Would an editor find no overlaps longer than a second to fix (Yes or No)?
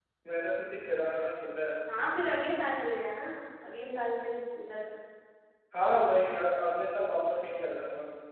Yes